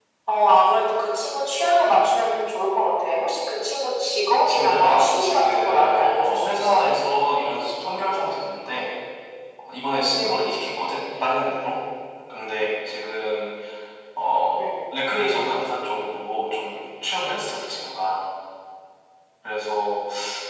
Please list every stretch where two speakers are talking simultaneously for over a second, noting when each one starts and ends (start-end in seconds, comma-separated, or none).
4.3-6.8